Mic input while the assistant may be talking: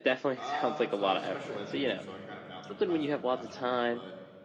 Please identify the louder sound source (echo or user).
echo